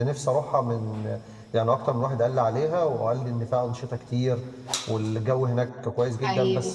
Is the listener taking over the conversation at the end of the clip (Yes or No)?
No